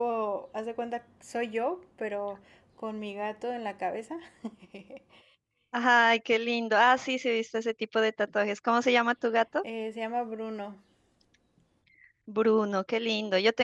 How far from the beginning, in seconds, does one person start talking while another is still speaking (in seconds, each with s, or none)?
none